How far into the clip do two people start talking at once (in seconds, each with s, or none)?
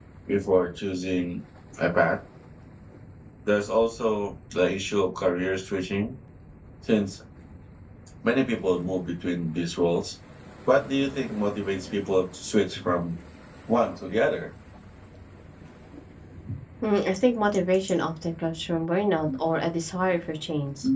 none